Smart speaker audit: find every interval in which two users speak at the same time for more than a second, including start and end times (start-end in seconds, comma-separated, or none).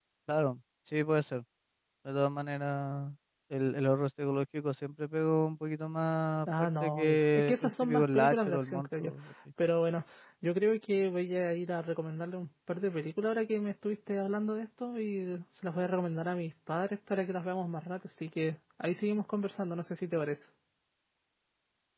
6.6-9.1